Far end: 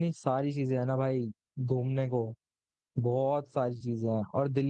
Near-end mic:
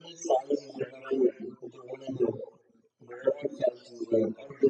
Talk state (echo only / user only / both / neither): echo only